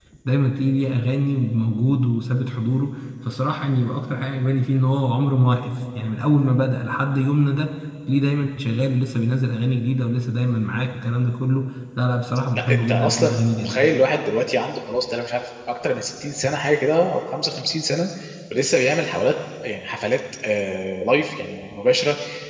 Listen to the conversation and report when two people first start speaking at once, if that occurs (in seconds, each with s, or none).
12.5 s